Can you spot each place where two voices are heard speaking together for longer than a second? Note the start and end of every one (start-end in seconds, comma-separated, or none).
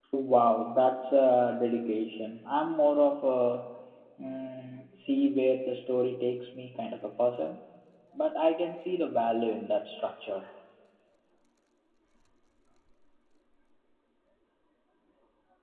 none